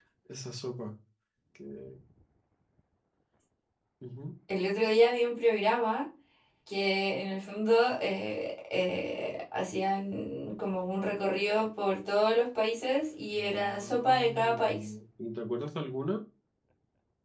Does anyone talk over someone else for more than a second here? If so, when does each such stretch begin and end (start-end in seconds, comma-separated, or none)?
13.3-14.9